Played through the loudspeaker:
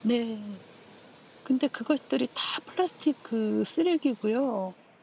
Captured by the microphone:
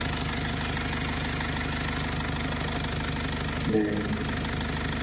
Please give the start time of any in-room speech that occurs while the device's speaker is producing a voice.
3.6 s

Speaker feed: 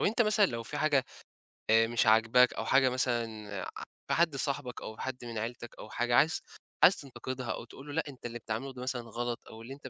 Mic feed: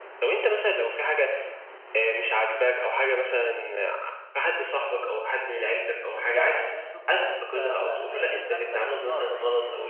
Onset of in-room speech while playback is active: 5.9 s

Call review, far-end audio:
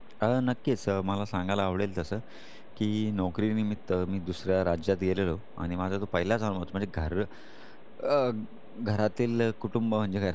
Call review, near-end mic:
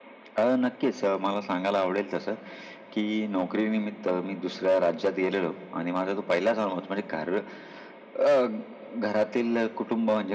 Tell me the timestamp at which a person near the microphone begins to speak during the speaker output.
none

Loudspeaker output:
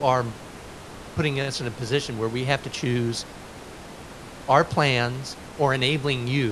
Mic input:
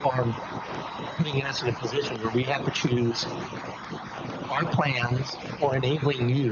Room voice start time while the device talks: none

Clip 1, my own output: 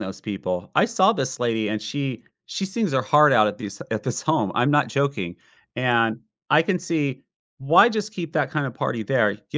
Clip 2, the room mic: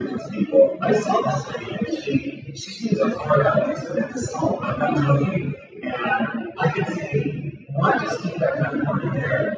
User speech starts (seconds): none

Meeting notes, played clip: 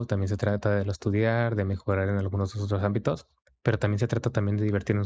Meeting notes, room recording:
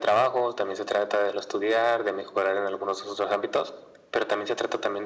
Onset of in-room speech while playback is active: none

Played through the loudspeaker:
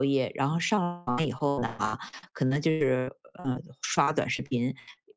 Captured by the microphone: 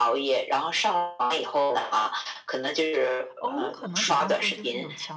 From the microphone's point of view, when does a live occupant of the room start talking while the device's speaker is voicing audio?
3.4 s

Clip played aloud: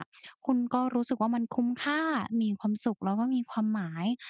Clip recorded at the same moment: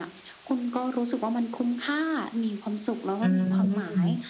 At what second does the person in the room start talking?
3.2 s

